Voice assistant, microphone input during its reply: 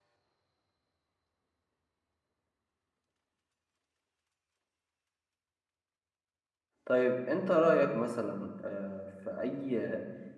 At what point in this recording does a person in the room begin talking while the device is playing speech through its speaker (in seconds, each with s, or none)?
6.8 s